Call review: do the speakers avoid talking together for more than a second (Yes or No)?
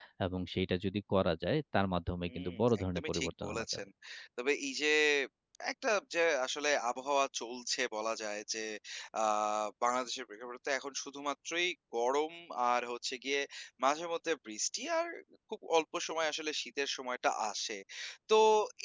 No